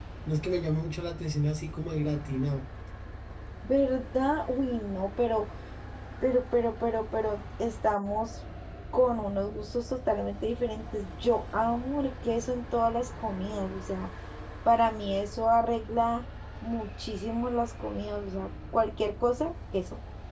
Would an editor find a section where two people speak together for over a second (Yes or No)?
No